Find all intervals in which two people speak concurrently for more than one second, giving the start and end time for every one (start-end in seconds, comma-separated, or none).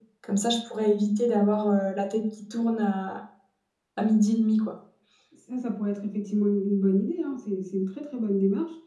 none